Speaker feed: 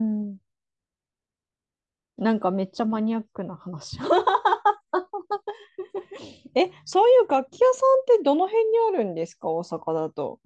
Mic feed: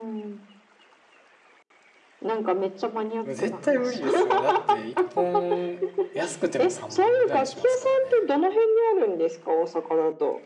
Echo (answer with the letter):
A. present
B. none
A